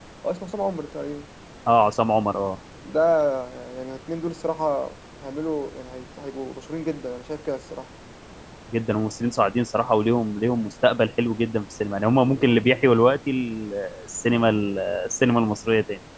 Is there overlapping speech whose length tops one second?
No

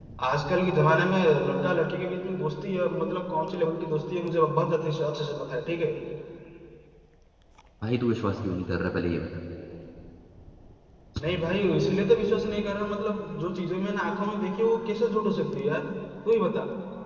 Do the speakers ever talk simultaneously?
No

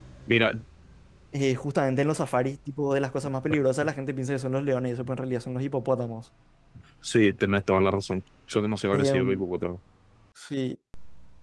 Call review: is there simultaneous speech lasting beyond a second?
No

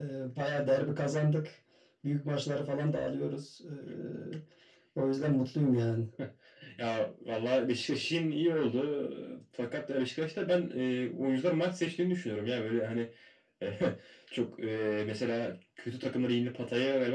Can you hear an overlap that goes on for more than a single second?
No

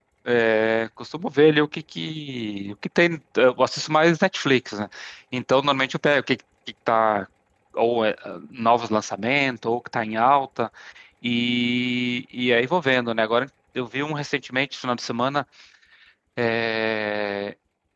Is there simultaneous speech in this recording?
No

